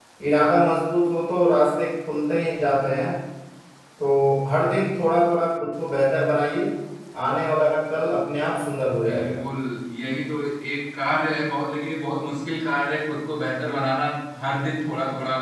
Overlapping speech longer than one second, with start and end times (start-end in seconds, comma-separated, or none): none